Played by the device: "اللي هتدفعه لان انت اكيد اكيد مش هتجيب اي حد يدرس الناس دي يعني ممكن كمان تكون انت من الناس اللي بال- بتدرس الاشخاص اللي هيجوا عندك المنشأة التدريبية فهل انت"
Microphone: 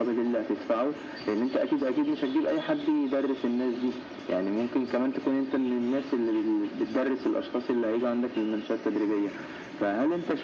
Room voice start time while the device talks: none

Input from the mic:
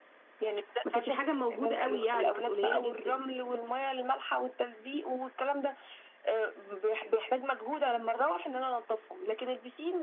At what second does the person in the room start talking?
1 s

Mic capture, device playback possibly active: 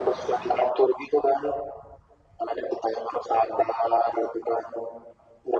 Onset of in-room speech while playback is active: none

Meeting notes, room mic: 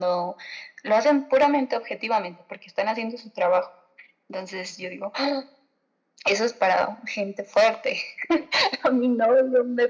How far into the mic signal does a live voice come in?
none

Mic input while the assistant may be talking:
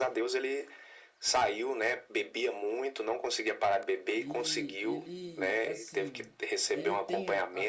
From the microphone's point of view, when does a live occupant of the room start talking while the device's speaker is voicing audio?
4 s

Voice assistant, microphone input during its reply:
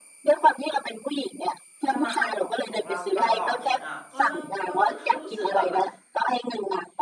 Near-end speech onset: 2 s

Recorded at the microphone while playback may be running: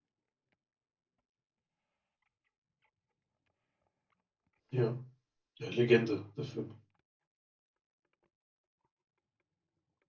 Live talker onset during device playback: 5 s

